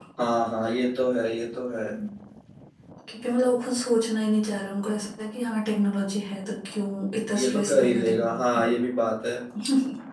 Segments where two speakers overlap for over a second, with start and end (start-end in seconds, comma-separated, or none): 7.3-8.6